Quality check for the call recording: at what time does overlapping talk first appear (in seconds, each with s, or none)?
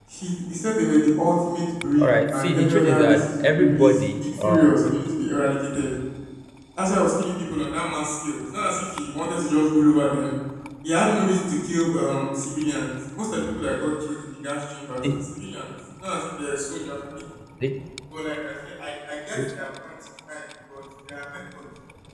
2.0 s